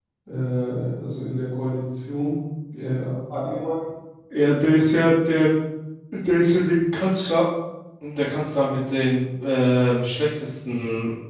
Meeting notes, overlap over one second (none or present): none